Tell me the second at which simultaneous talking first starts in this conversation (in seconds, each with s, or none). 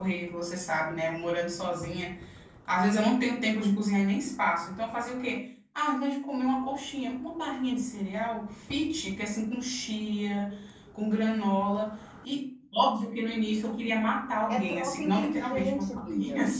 14.5 s